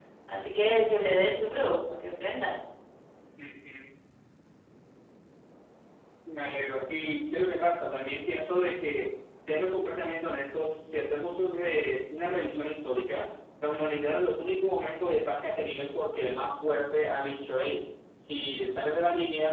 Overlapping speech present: No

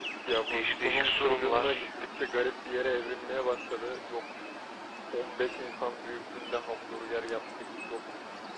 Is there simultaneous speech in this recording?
Yes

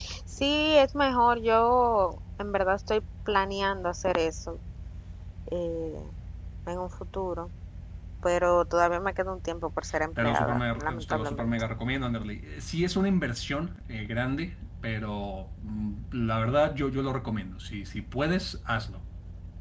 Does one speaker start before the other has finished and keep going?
Yes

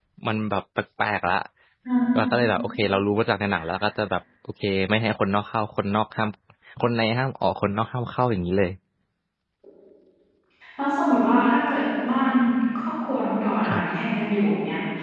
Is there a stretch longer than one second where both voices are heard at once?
No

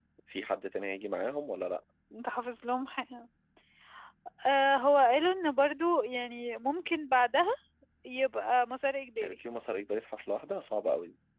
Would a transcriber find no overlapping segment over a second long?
Yes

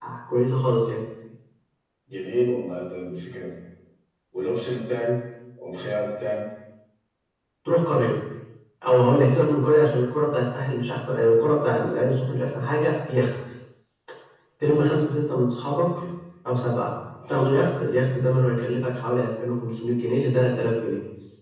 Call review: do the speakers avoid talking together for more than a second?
Yes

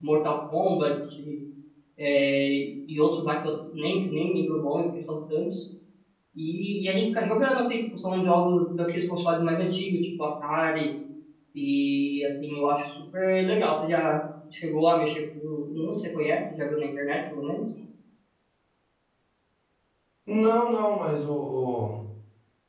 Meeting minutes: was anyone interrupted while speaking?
No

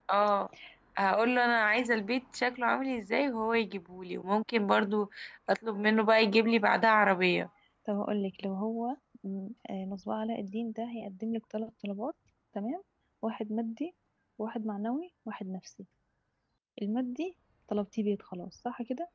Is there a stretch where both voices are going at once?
No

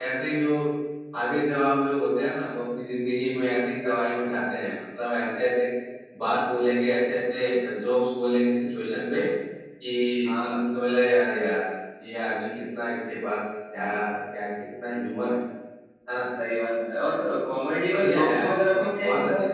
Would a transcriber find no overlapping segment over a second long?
No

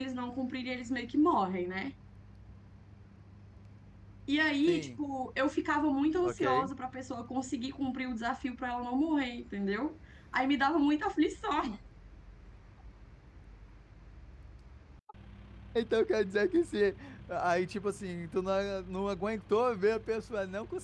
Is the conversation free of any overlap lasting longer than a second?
Yes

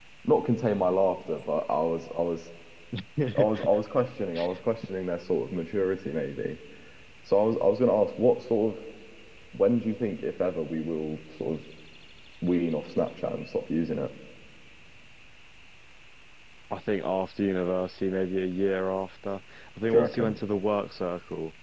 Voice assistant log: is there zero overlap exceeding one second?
Yes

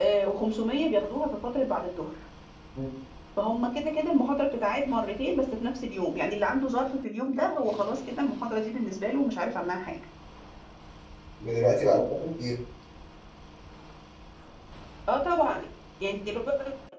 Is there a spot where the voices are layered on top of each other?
No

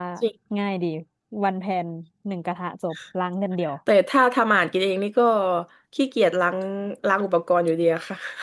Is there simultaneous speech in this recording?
No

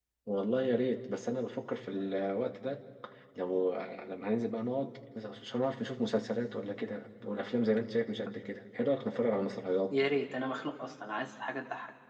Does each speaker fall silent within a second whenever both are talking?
Yes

